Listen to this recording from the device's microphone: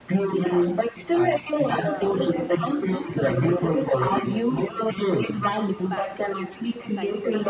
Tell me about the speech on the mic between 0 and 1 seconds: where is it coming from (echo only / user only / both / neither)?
echo only